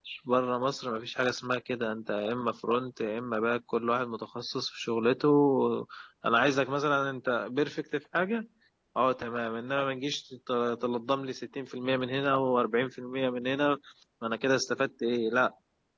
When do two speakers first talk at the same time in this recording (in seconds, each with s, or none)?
none